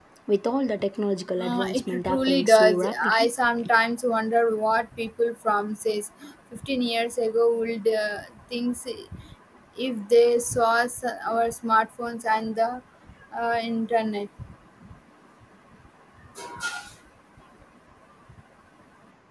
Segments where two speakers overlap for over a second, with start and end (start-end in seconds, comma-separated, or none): 1.4-3.3